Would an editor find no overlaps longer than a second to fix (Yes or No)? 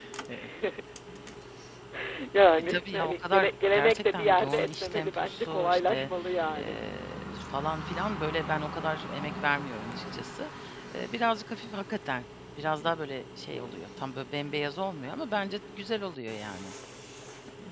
No